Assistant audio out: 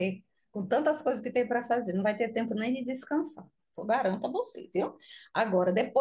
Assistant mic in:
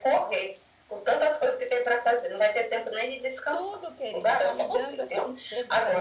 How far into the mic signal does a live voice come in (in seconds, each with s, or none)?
3.5 s